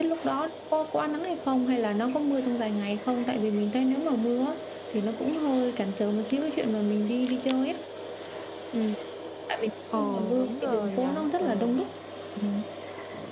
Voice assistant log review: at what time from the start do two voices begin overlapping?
10 s

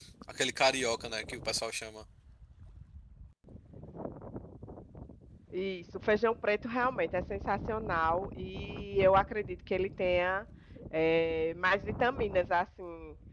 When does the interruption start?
none

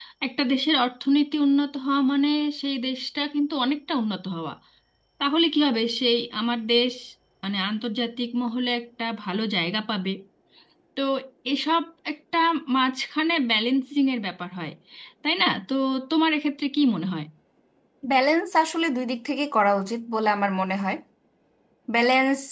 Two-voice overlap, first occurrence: none

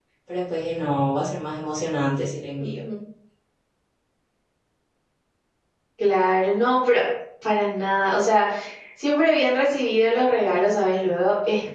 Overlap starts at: none

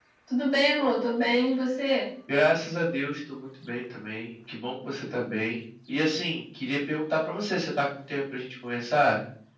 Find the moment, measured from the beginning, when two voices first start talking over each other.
none

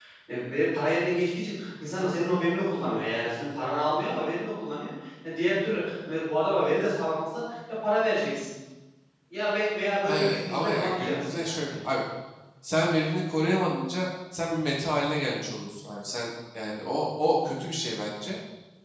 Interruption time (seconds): 10 s

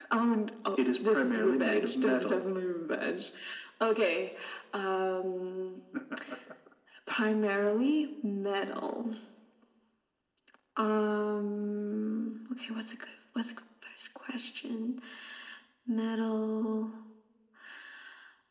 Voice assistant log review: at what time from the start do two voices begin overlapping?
1 s

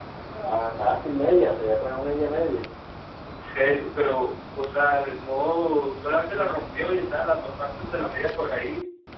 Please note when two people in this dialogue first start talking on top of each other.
none

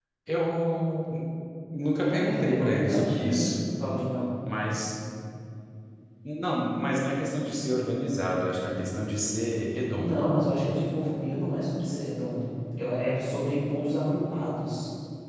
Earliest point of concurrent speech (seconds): 2 s

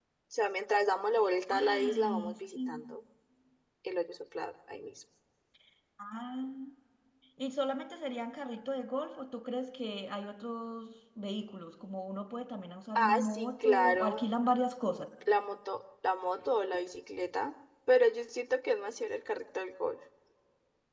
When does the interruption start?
1 s

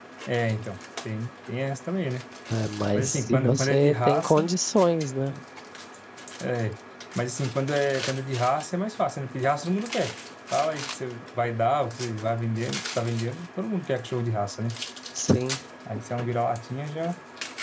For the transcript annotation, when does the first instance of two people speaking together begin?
3 s

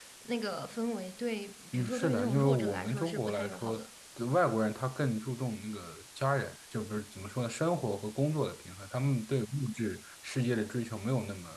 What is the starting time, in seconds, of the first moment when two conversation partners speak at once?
2 s

